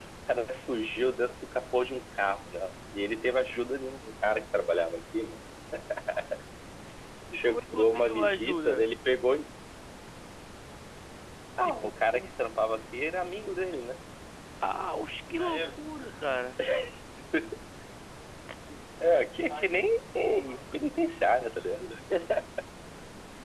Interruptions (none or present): present